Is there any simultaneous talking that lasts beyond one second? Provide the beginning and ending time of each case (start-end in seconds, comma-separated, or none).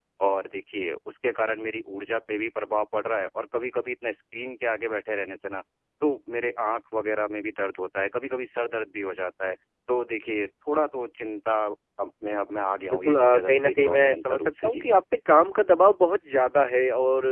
12.9-14.8